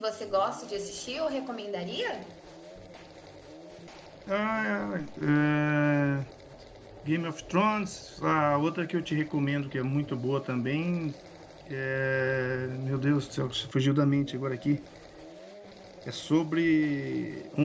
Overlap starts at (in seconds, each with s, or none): none